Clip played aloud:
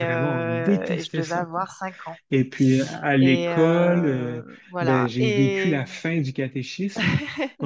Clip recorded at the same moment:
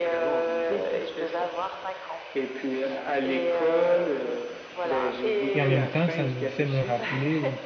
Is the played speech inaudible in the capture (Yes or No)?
No